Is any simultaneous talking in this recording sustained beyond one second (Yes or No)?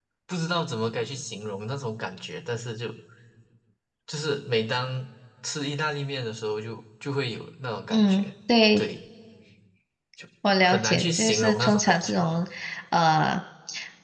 Yes